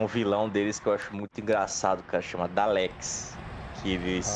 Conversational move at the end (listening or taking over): listening